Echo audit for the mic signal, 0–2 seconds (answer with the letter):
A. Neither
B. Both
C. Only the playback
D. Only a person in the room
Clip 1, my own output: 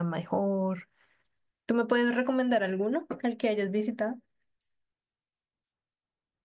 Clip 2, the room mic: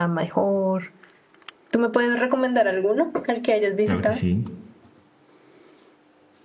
C